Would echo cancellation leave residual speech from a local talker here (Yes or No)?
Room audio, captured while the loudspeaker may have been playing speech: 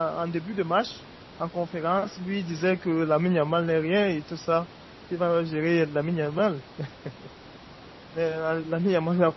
Yes